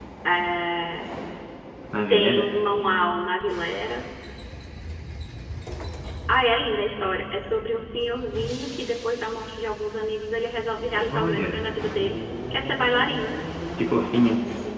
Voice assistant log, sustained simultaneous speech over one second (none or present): none